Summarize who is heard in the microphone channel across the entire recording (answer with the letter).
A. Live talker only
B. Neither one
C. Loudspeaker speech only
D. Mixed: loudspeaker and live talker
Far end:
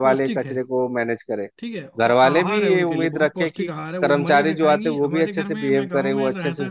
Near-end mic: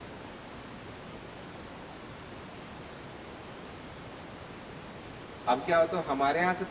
A